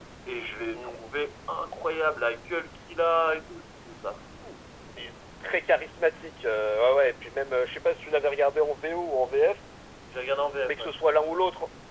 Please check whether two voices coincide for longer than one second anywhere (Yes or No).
No